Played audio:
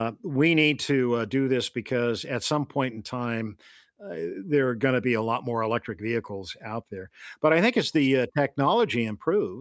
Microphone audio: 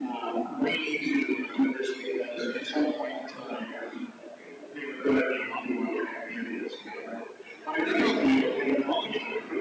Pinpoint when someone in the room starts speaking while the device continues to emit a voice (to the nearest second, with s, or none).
8 s